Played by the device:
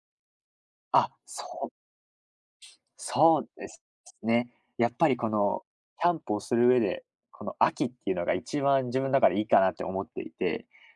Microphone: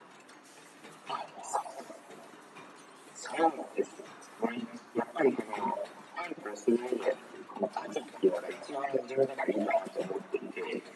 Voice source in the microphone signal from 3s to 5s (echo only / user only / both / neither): echo only